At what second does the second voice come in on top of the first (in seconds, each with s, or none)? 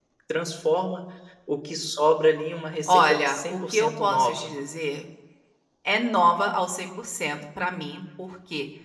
2.9 s